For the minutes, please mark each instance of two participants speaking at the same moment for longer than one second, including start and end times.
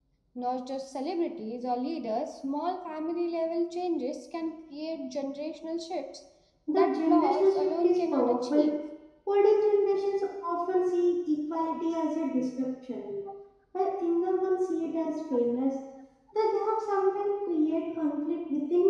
6.7-8.7

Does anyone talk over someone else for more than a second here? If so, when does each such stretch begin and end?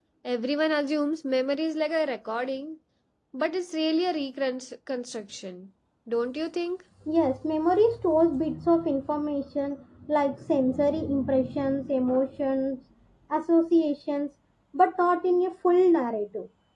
none

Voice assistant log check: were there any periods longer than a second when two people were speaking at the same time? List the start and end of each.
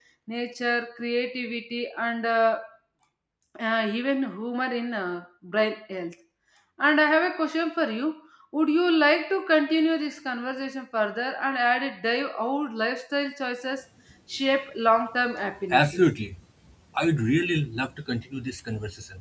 none

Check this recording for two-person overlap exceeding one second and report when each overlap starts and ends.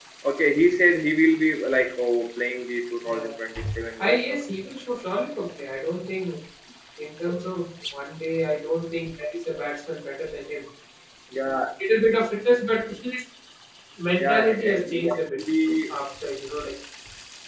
14.2-15.4

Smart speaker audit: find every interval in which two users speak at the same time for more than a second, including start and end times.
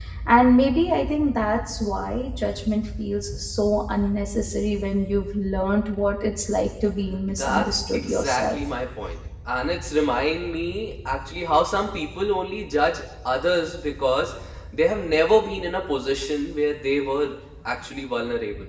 7.3-8.6

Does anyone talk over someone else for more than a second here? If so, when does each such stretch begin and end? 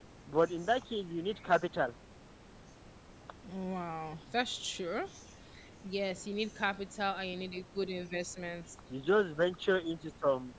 none

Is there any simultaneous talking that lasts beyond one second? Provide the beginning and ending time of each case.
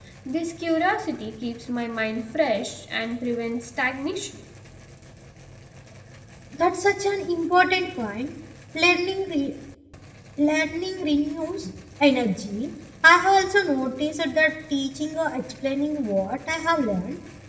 none

